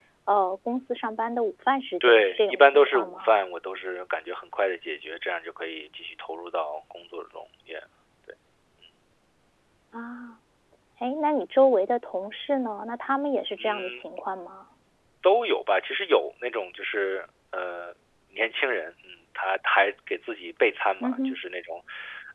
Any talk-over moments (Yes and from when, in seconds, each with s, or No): Yes, from 2.0 s